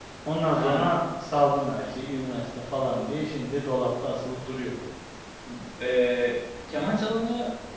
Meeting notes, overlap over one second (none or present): none